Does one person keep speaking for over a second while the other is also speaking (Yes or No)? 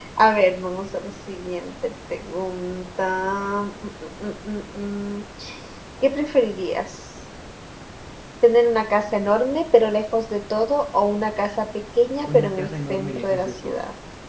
Yes